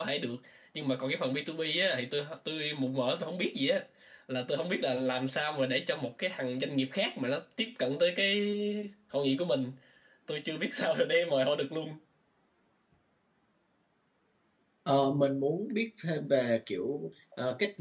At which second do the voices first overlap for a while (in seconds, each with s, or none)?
none